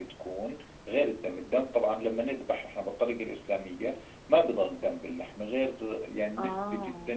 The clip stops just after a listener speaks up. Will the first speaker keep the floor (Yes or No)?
Yes